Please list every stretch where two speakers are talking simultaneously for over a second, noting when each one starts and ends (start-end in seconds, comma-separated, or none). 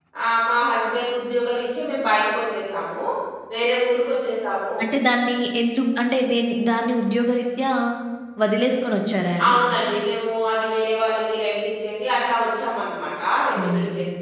none